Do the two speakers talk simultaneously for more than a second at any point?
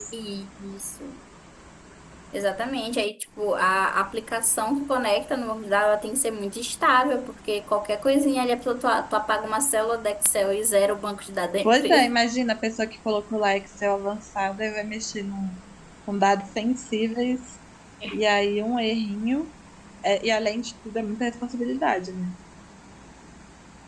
No

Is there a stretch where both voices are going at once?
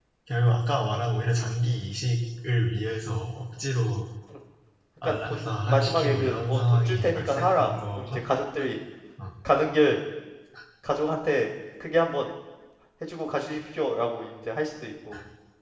Yes, from 5.0 s

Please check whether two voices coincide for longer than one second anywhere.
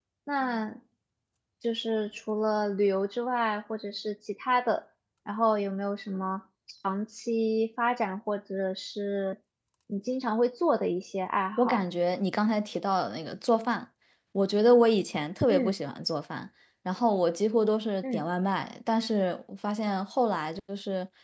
No

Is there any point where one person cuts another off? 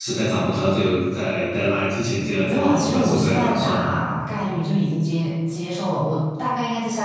Yes, from 2.5 s

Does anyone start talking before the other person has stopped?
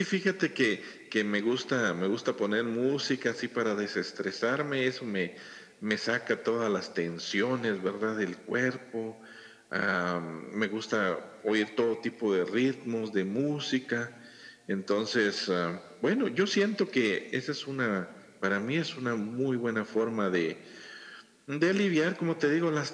No

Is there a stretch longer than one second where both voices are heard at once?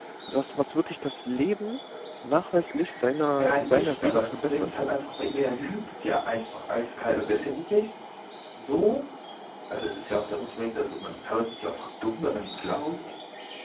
Yes, from 3.4 s

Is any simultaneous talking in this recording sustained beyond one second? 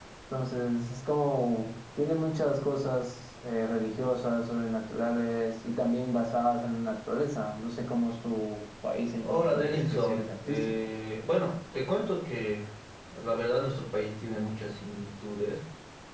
Yes, from 9.2 s

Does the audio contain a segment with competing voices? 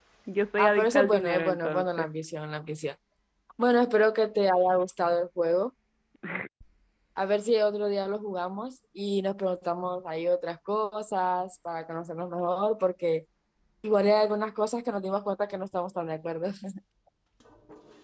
Yes, from 0.6 s

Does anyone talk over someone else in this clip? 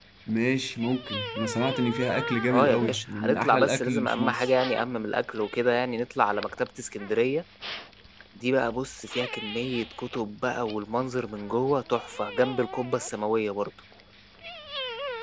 Yes, from 2.5 s

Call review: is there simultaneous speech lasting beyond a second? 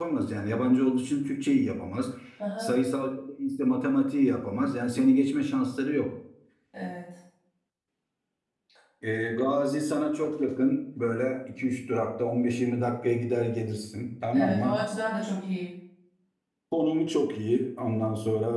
No

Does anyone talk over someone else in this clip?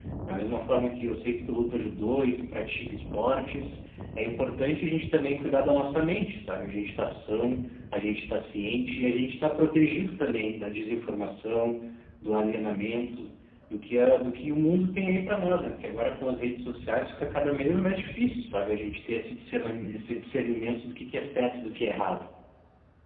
No

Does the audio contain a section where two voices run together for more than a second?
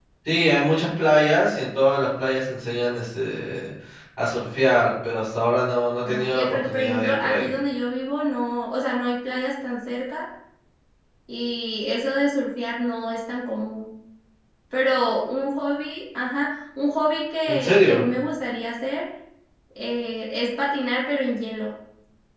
Yes, from 6.0 s

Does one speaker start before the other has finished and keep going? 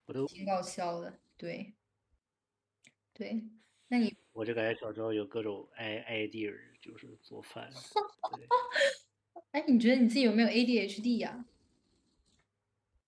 No

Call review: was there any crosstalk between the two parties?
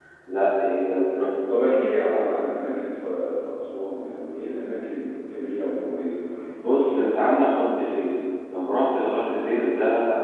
No

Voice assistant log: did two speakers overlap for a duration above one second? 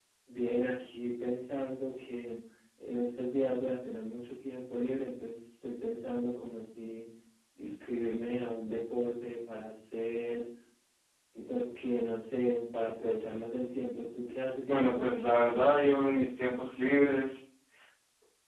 Yes, from 14.6 s

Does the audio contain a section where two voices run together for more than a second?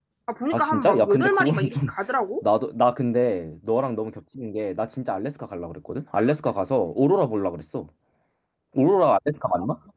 Yes, from 0.5 s

